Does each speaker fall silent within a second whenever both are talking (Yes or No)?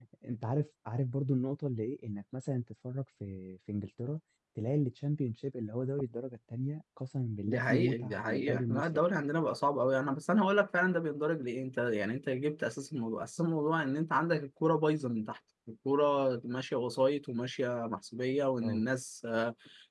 No